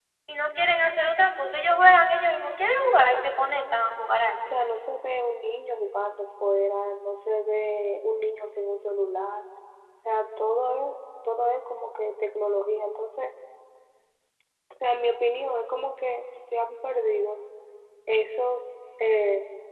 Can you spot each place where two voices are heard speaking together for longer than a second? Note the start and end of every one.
none

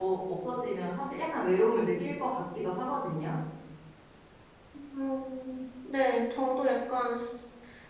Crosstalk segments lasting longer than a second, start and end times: none

